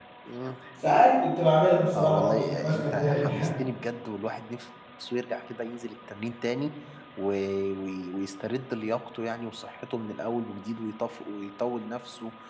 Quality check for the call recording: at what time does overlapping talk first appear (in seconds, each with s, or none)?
1.9 s